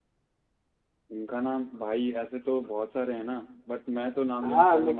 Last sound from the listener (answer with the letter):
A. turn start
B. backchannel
A